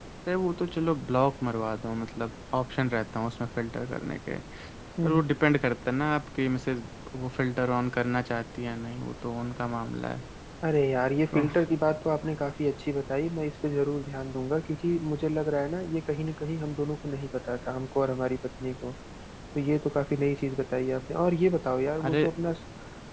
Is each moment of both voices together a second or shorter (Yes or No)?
Yes